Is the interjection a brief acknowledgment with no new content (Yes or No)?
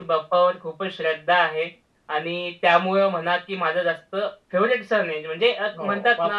Yes